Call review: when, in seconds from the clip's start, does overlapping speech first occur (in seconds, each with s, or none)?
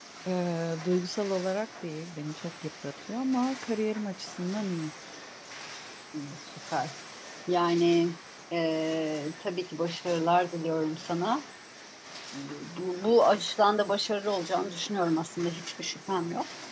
none